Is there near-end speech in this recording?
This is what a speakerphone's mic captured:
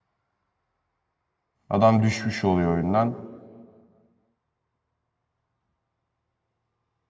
Yes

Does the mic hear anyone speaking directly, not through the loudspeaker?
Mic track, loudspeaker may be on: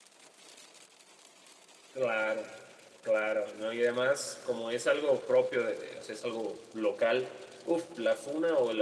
Yes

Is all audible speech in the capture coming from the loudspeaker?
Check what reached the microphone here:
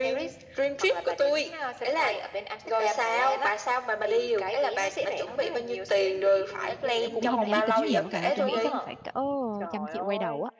No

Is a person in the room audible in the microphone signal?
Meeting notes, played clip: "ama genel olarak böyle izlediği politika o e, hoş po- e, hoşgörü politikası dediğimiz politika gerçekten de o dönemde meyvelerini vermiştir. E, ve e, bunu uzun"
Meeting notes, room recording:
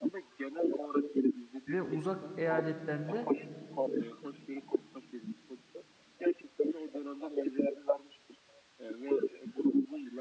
Yes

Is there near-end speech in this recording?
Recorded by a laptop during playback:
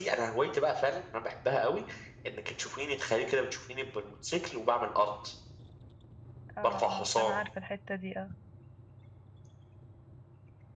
Yes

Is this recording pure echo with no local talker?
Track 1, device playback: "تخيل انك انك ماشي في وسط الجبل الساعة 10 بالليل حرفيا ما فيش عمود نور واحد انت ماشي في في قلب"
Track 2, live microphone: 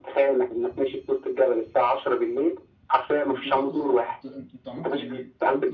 No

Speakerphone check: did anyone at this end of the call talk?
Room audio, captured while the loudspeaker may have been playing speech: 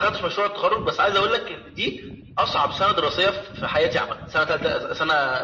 No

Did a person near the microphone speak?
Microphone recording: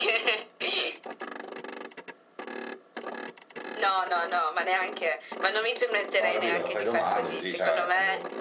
Yes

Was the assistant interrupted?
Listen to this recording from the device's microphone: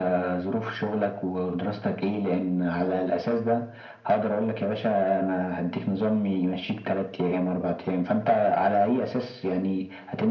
No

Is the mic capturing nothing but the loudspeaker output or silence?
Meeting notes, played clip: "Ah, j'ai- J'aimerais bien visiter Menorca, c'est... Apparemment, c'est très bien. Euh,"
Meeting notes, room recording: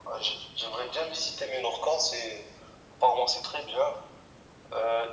Yes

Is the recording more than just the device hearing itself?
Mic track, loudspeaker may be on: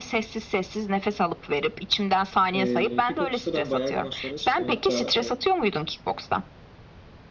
Yes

